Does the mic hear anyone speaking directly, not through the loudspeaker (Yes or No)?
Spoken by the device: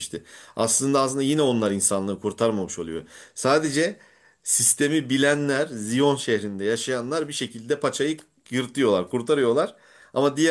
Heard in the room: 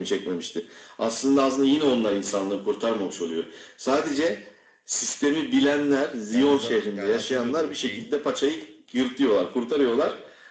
Yes